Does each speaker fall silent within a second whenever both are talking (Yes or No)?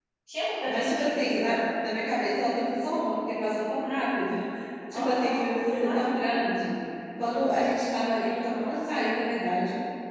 No